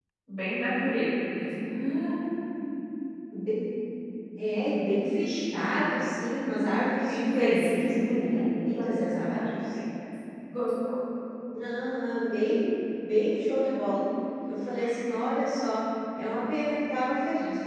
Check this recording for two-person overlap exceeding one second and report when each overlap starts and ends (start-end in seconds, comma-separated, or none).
7.1-9.7